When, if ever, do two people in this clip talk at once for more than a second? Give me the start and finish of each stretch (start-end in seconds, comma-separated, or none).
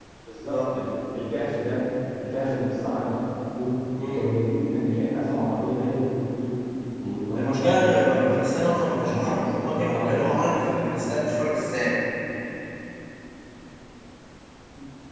7.3-10.9